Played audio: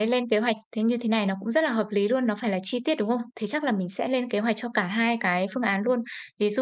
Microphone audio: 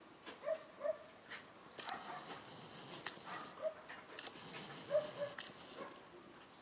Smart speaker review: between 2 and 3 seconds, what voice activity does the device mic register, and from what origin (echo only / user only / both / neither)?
neither